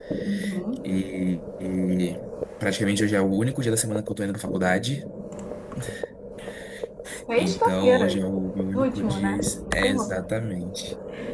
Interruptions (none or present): present